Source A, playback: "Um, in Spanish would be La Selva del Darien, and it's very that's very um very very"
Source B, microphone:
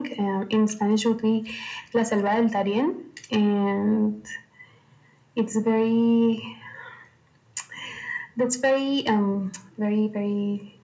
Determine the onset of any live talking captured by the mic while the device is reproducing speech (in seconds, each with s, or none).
none